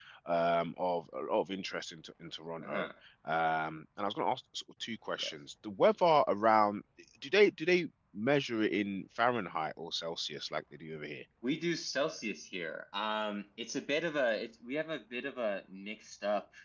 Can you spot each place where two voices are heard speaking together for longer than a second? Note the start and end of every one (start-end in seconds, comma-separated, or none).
none